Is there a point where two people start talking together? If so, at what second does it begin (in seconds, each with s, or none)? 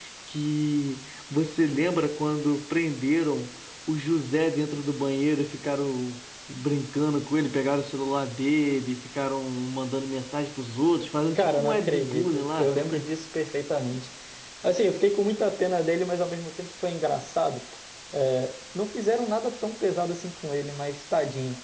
11.3 s